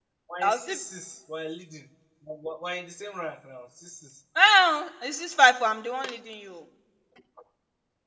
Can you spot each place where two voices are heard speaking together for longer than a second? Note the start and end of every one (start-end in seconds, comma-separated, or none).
none